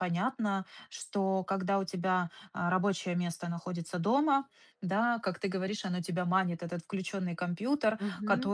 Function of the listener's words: listening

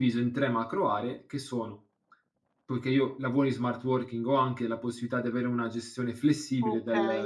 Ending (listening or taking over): taking over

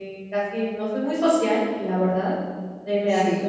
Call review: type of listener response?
listening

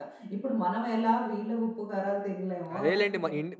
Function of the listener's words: taking over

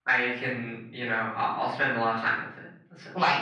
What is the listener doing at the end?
taking over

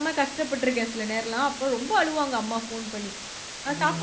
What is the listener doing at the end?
listening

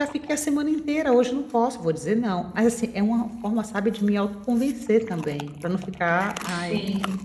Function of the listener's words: listening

